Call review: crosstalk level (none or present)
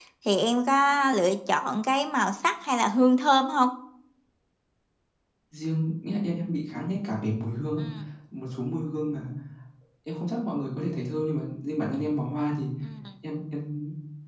none